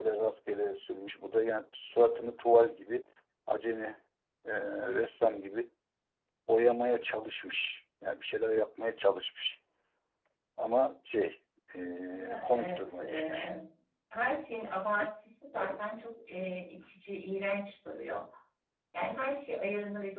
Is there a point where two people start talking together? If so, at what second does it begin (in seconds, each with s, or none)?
12.1 s